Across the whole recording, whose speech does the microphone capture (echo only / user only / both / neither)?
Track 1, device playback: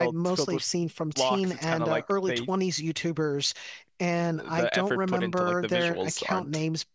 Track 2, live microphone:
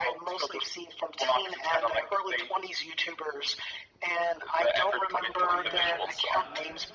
both